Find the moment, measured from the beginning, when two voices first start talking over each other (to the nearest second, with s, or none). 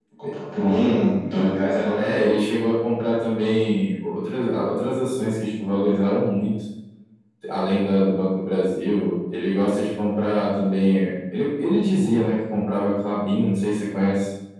none